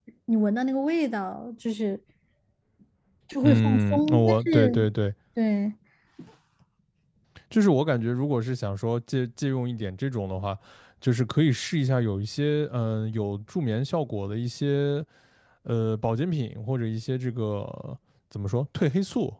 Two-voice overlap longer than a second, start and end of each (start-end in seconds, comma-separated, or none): 3.4-4.8